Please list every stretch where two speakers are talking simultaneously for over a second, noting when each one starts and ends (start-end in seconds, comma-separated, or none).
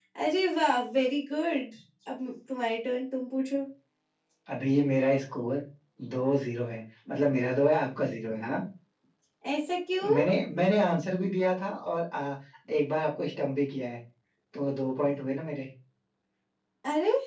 none